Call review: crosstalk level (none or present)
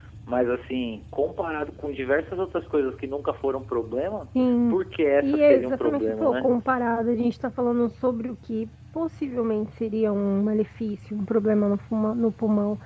present